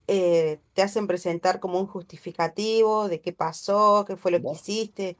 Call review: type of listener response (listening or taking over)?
listening